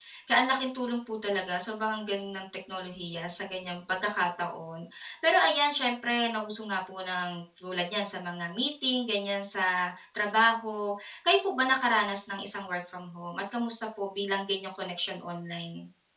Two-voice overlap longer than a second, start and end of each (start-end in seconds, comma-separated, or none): none